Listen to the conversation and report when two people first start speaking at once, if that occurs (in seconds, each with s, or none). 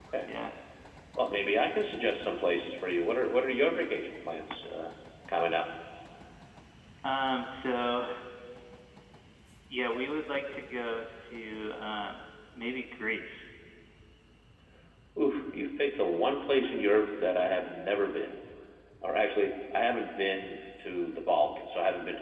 none